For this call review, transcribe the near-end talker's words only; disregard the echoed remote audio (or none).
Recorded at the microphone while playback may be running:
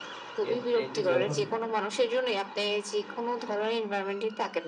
এর চাইতে জঘন্য।